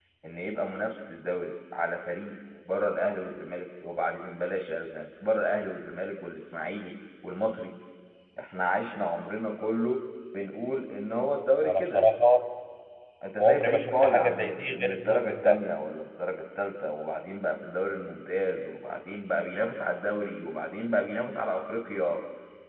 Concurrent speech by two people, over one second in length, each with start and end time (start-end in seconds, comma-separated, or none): 13.4-15.6